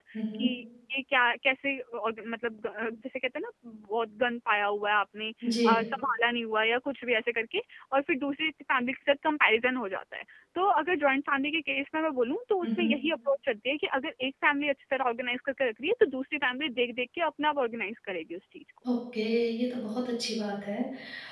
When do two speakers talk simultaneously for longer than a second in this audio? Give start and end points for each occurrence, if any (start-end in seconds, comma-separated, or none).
none